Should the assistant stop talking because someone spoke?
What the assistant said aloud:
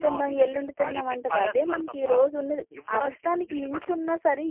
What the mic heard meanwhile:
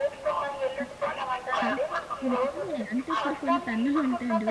Yes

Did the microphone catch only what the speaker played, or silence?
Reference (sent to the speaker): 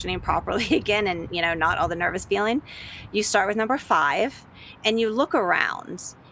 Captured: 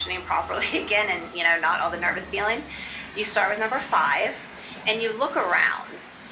Yes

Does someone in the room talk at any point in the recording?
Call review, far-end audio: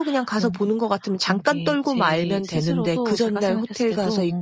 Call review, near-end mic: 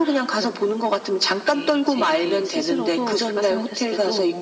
No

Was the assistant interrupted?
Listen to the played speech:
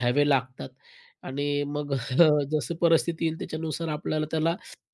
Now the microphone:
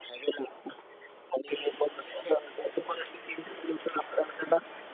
No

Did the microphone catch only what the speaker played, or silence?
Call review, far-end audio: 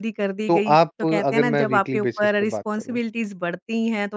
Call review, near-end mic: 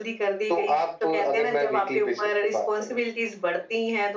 Yes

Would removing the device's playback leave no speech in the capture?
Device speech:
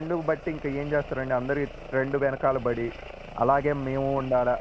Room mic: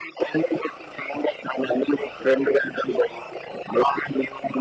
Yes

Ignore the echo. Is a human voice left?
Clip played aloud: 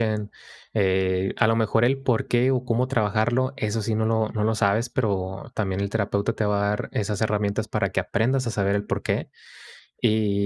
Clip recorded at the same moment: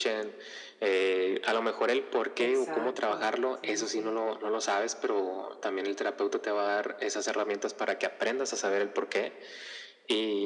Yes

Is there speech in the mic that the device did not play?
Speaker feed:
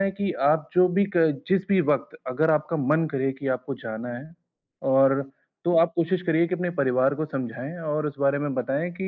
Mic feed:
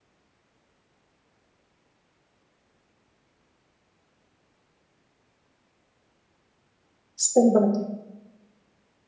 Yes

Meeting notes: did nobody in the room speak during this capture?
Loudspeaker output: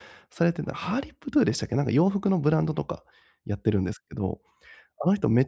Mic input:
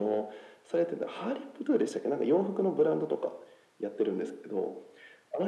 Yes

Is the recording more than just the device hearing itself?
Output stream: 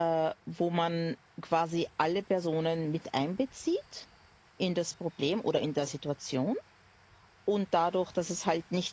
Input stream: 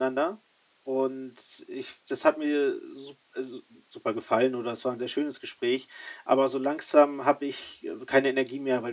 Yes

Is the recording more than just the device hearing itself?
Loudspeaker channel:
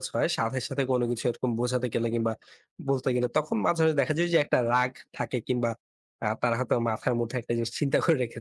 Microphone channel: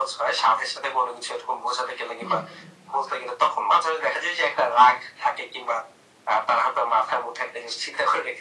Yes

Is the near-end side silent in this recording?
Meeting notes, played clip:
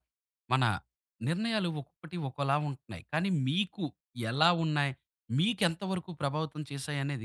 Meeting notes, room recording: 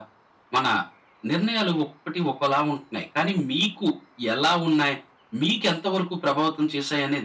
Yes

